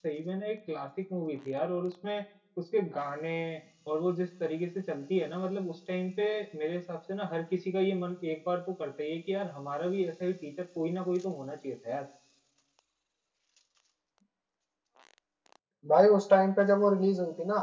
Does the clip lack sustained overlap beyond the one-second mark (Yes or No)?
Yes